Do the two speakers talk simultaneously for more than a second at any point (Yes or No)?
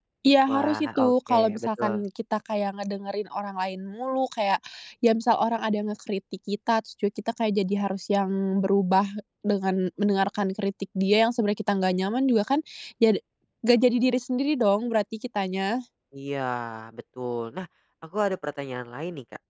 Yes